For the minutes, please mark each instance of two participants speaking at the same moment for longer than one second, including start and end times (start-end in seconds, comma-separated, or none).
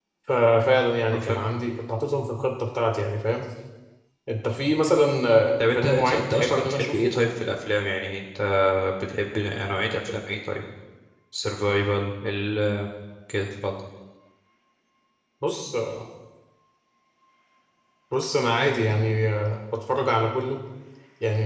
5.6-7.2